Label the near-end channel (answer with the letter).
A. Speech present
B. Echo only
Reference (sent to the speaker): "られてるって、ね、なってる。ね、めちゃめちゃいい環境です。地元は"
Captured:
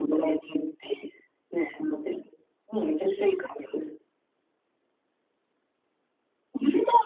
B